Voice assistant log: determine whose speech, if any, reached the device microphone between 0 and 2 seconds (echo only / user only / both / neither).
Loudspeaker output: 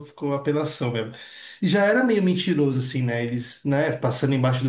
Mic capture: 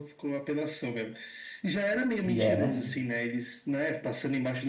echo only